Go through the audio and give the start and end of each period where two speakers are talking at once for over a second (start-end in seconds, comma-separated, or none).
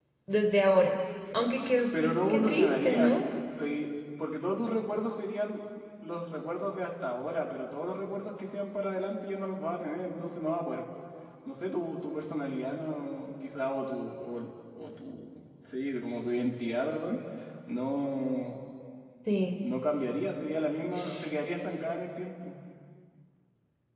1.9-3.1